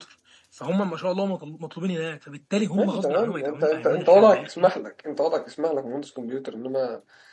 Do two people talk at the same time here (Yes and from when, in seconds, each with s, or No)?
Yes, from 2.8 s